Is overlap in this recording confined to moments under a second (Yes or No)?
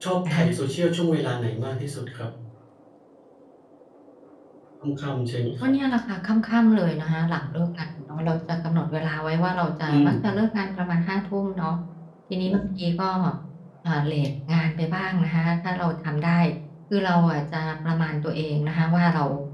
Yes